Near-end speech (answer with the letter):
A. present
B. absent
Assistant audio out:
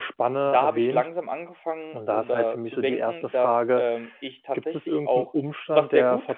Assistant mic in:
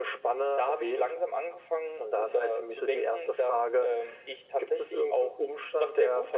B